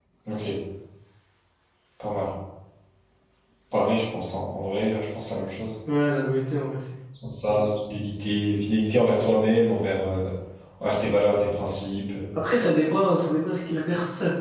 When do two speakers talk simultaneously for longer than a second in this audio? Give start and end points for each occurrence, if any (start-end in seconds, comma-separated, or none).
none